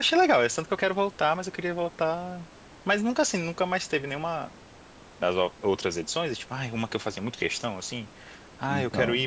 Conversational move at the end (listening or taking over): listening